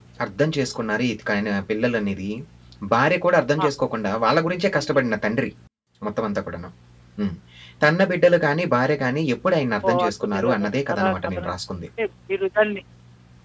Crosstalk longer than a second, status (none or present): present